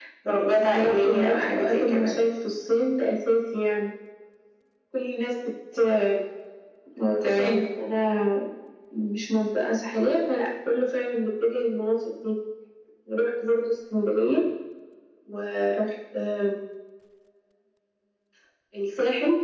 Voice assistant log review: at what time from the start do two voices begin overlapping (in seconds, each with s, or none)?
0.6 s